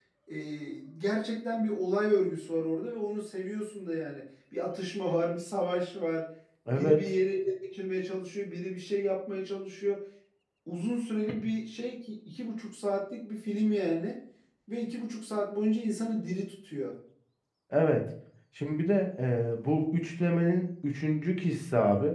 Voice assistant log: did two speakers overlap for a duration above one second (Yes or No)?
No